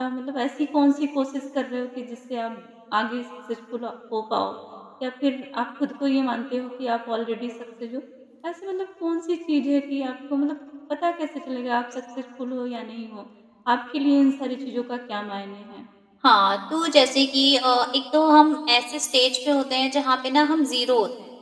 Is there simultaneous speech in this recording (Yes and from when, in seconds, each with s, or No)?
No